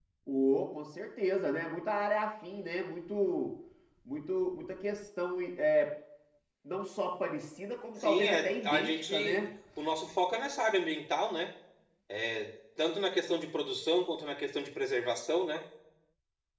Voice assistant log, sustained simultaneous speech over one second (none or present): present